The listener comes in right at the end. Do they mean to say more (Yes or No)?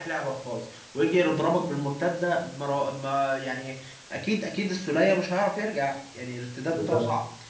No